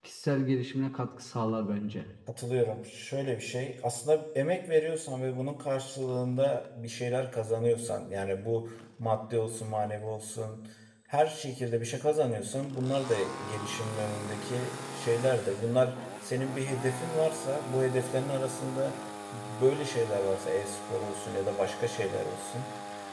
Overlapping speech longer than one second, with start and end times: none

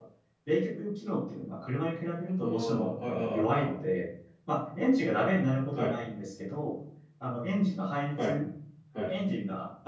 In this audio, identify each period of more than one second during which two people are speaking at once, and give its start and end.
2.4-3.8

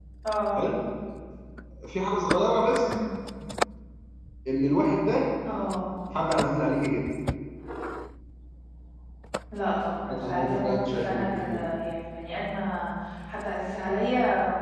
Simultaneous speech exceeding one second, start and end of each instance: 10.0-11.7

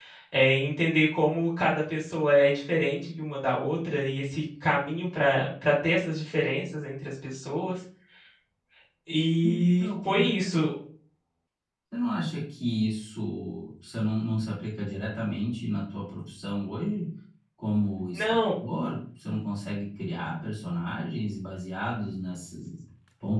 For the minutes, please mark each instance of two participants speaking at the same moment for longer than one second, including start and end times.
9.4-10.7

